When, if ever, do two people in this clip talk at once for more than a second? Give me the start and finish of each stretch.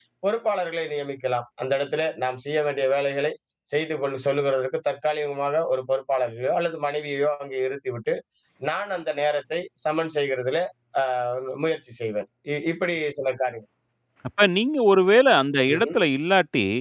none

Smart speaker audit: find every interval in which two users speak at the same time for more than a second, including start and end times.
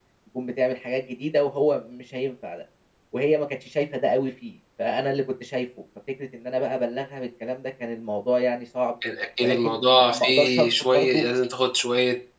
9.4-11.2

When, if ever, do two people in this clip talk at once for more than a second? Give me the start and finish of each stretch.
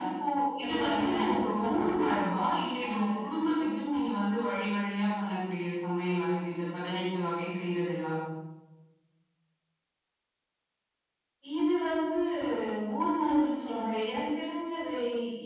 0.7-2.0

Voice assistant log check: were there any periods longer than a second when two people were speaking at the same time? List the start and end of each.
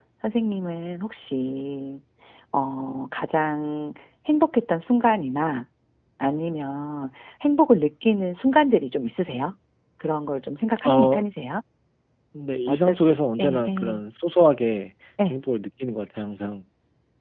12.7-14.0

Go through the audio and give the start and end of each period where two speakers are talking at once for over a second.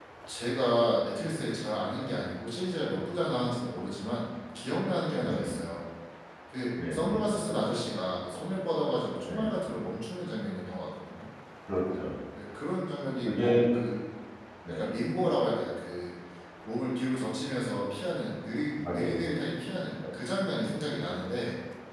none

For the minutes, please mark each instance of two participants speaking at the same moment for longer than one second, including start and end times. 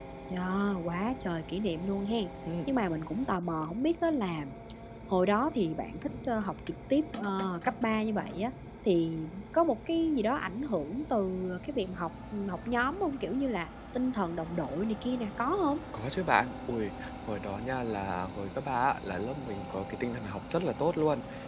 none

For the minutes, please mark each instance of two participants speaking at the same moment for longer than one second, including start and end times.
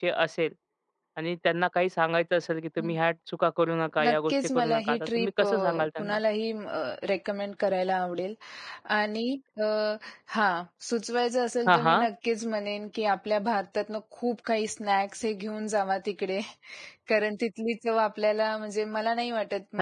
4.0-6.2

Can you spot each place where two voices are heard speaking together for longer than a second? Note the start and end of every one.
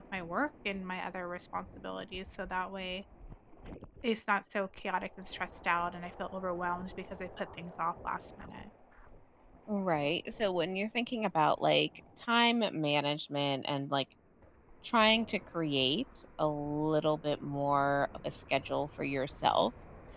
none

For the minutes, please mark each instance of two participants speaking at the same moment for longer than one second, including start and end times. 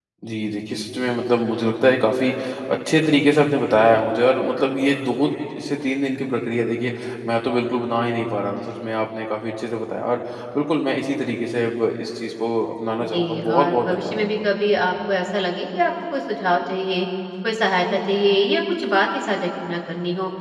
13.0-14.3

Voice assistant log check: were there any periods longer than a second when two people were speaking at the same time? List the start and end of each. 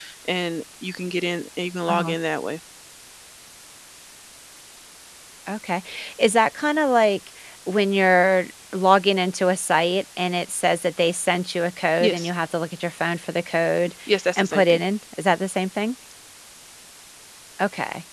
none

